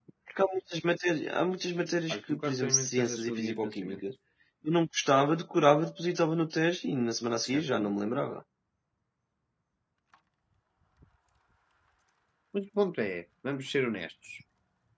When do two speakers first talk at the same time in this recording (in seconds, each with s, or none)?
2.1 s